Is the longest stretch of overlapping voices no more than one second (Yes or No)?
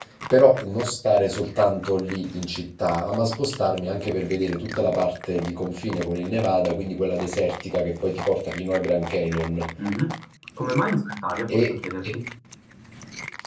Yes